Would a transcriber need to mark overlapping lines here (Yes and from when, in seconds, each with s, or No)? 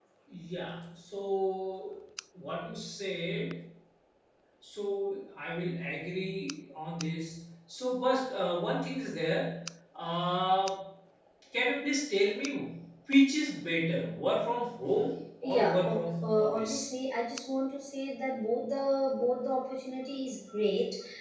Yes, from 15.4 s